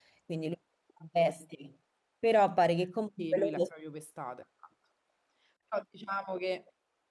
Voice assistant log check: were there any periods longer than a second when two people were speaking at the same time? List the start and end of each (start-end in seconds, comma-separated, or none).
none